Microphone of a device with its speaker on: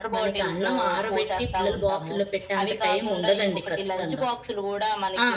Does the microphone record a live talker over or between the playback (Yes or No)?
Yes